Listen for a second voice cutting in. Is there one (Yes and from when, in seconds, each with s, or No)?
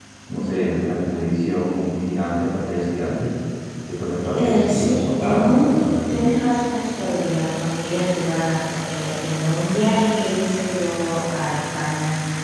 Yes, from 4.4 s